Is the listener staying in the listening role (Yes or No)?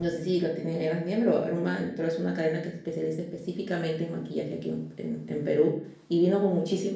Yes